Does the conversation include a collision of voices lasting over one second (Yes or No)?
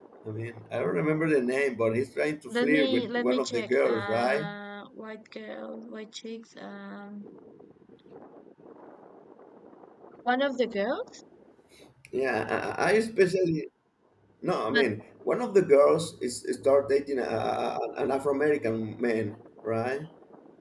Yes